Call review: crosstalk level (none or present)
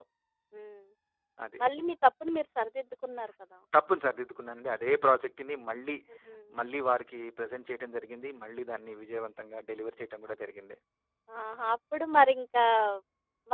none